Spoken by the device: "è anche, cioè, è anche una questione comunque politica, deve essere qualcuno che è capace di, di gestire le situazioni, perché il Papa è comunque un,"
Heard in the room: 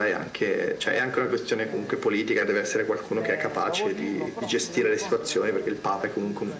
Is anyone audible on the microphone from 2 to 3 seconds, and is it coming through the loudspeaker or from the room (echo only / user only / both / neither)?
both